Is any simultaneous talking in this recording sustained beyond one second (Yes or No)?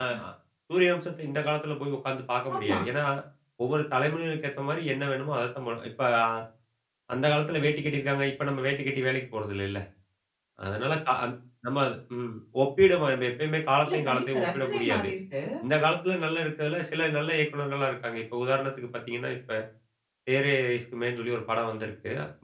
Yes